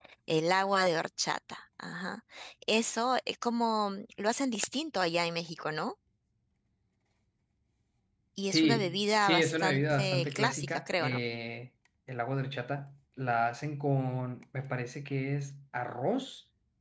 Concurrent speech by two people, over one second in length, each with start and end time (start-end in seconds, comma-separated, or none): 8.5-11.2